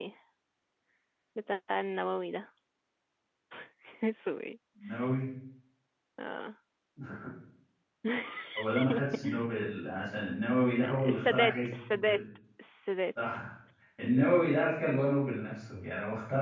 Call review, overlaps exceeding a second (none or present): present